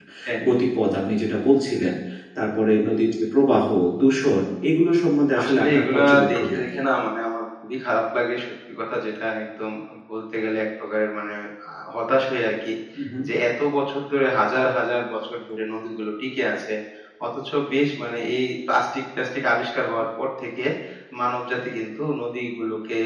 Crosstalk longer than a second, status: present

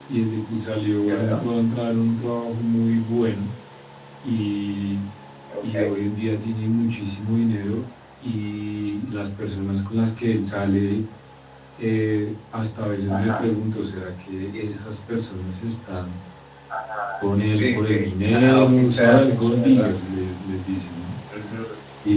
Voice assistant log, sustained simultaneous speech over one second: present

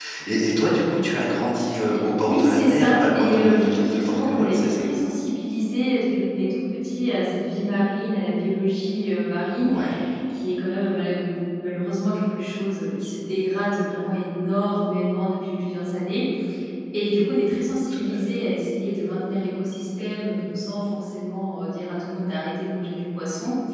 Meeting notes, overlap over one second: present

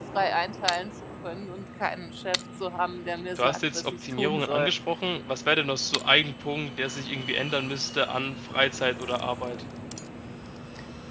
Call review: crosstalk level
present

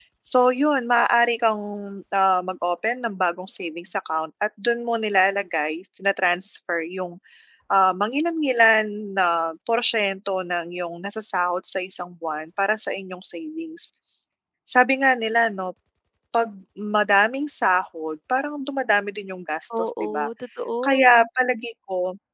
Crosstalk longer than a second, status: none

